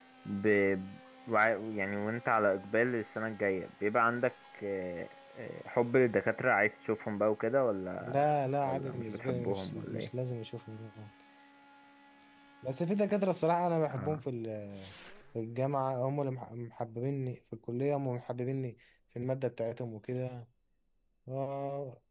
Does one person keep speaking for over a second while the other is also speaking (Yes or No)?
Yes